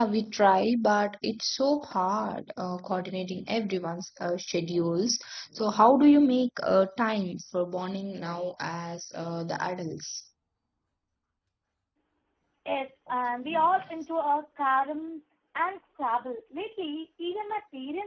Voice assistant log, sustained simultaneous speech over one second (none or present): none